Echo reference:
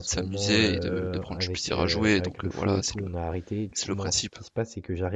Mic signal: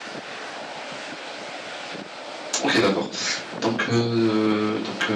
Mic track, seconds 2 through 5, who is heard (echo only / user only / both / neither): user only